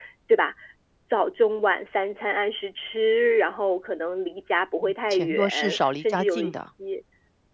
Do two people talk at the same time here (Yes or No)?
Yes